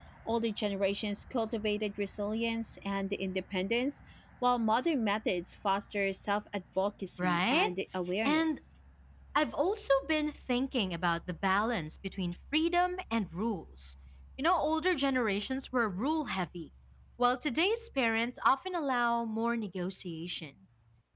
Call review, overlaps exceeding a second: none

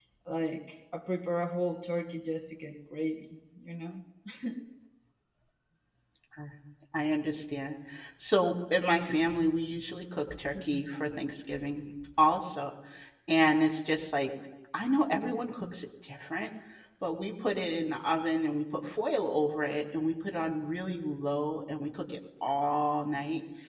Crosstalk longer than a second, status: none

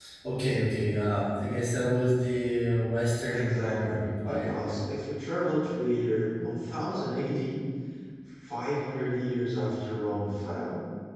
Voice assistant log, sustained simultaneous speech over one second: present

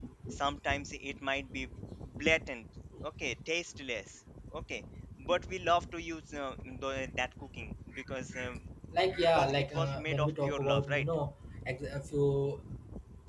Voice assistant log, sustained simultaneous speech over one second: present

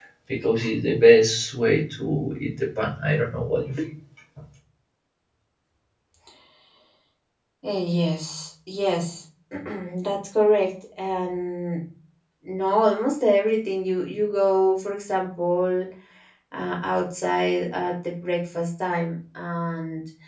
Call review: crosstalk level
none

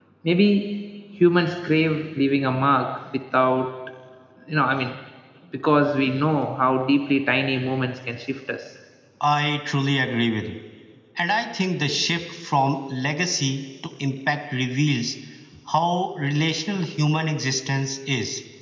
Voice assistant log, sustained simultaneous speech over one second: none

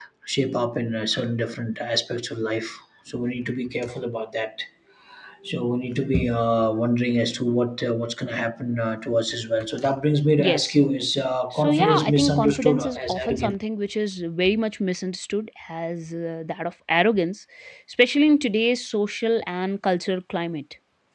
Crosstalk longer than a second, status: present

